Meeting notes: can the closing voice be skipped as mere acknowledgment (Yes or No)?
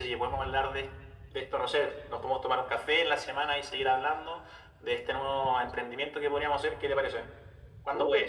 No